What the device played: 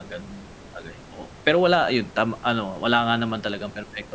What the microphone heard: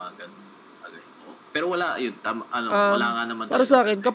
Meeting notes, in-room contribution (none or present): present